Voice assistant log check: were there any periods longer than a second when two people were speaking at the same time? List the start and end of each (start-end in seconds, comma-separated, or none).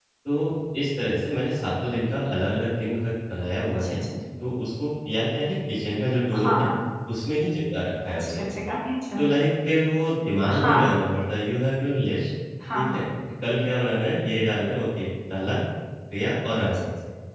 none